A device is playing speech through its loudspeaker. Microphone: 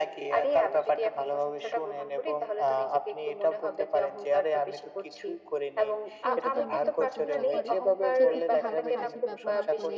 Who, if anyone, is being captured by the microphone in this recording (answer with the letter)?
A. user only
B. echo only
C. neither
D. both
D